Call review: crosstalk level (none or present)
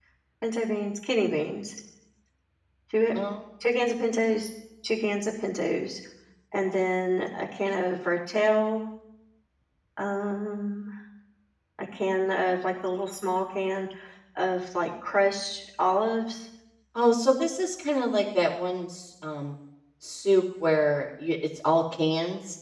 none